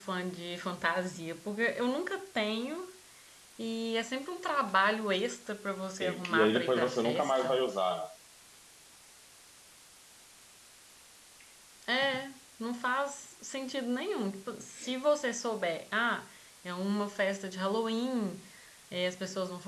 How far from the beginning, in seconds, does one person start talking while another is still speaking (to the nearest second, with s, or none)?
6 s